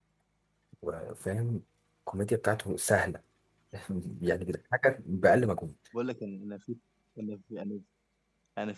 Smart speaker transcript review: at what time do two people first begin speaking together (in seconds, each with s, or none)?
none